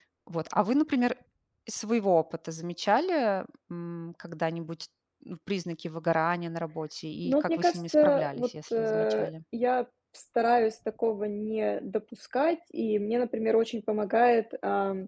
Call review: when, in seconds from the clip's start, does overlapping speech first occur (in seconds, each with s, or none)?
7.2 s